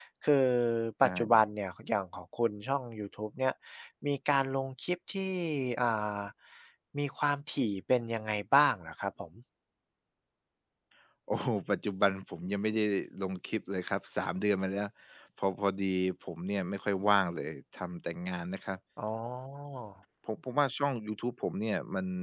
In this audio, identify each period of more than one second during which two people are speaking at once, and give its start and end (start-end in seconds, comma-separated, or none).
none